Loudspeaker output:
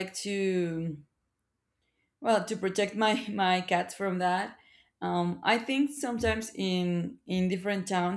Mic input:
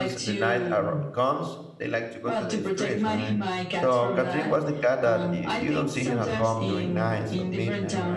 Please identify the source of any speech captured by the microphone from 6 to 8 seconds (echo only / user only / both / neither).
both